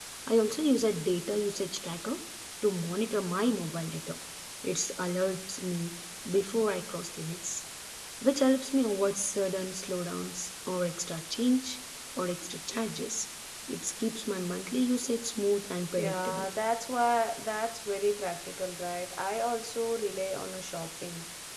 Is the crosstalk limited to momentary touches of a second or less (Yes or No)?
Yes